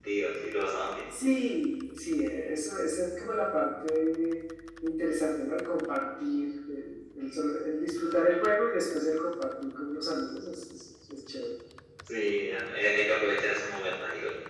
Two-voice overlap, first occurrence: none

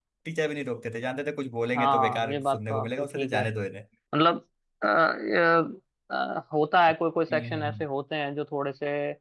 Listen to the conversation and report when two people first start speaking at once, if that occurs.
1.7 s

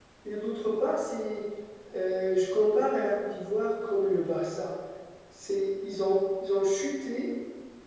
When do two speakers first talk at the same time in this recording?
none

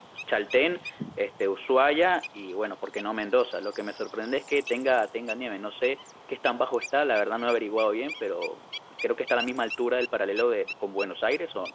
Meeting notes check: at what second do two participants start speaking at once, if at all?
none

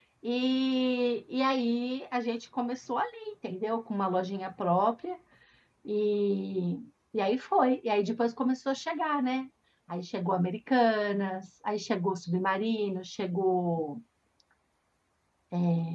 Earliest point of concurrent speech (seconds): none

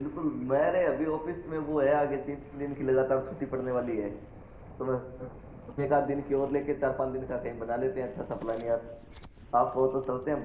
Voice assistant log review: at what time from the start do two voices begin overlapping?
none

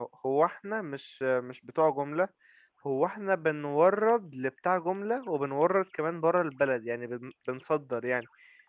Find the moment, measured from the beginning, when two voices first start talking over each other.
none

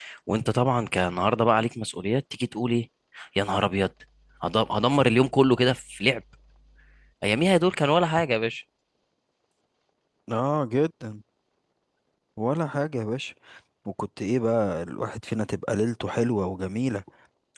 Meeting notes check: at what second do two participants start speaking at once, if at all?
none

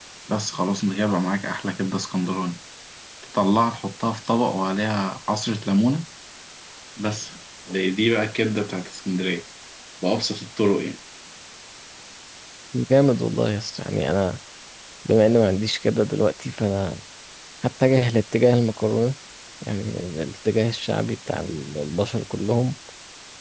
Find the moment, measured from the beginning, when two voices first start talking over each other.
none

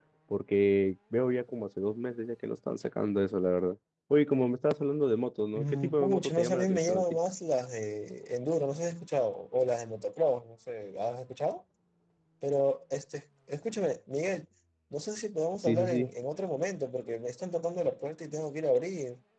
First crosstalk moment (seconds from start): 5.5 s

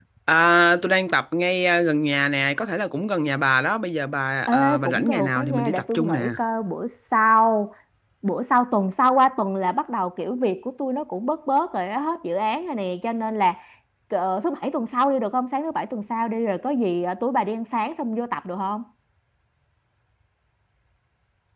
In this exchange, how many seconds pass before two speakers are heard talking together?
4.5 s

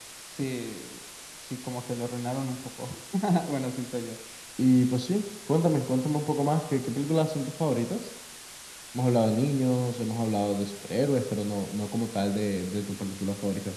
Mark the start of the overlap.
none

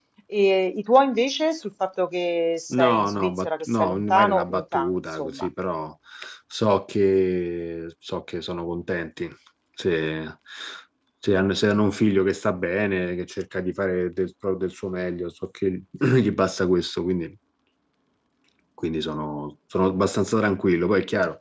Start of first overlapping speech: 2.7 s

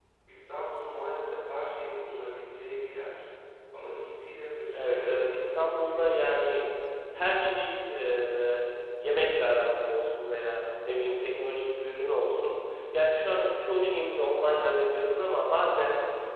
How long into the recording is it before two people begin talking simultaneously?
4.7 s

